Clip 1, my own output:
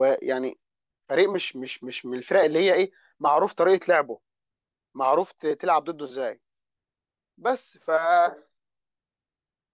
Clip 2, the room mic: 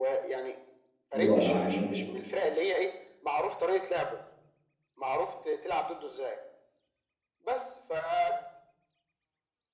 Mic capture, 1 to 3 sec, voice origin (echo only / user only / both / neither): both